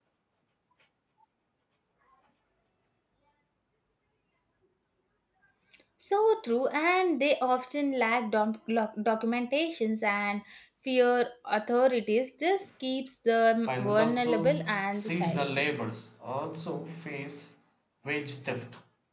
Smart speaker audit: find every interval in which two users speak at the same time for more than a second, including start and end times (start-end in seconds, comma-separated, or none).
13.7-15.4